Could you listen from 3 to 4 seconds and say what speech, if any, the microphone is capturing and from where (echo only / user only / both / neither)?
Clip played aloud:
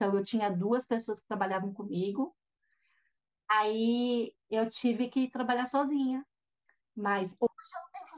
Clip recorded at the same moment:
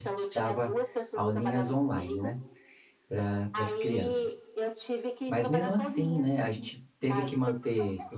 both